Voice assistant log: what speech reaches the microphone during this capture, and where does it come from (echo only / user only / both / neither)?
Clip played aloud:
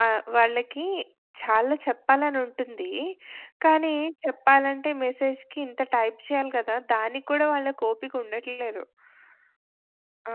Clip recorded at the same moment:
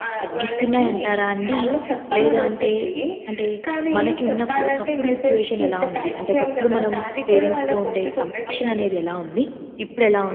both